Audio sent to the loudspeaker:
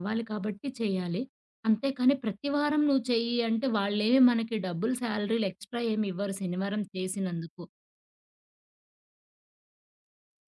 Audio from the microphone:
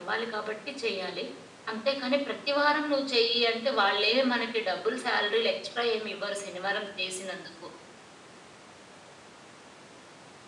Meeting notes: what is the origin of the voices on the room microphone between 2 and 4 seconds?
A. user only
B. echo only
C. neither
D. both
B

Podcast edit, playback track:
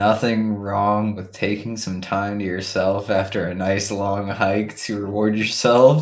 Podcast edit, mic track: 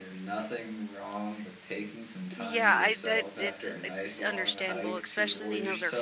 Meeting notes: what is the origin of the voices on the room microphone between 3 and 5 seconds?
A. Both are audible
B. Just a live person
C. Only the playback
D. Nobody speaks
A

